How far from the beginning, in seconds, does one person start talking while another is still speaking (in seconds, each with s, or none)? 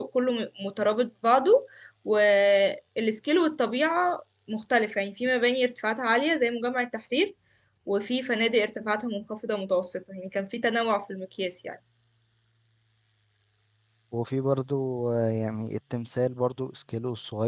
none